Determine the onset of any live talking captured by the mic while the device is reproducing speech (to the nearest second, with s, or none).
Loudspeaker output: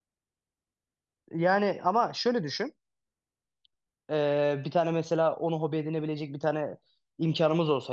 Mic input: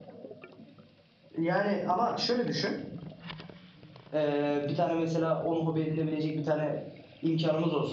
none